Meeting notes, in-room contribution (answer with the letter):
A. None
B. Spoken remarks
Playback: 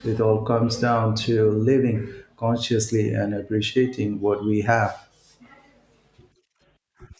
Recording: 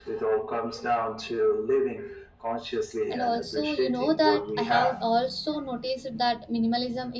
B